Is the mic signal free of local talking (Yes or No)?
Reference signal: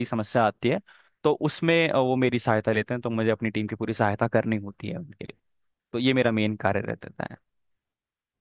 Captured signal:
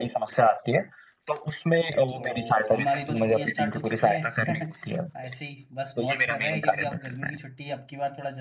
No